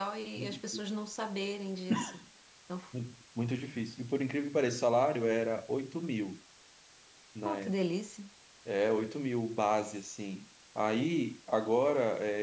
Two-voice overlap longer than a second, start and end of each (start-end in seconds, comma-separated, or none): none